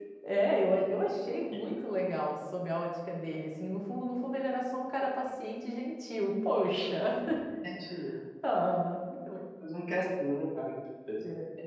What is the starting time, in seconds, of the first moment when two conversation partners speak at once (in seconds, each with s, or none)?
none